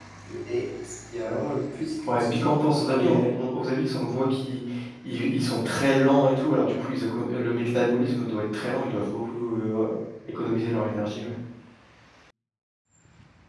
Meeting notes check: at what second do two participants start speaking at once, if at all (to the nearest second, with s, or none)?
2 s